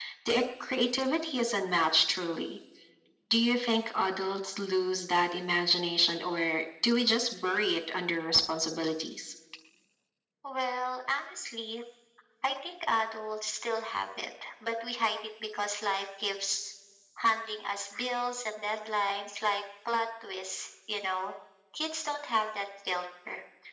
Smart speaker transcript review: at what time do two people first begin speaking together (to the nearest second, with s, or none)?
none